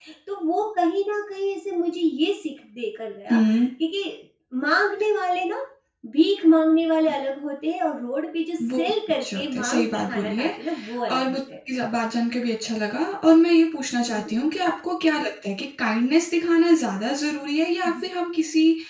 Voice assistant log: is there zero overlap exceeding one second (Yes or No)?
No